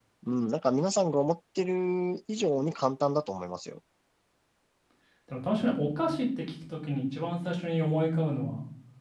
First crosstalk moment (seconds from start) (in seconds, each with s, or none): none